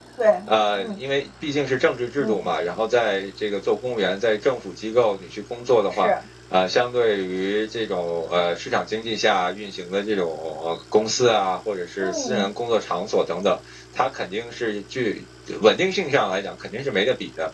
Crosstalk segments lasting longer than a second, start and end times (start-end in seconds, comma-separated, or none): none